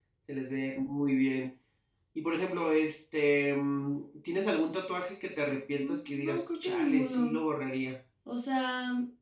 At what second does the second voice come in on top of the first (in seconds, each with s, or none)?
5.8 s